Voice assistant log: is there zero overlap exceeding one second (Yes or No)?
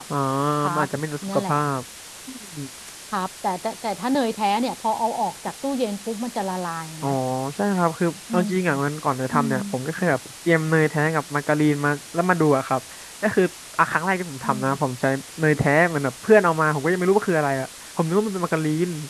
Yes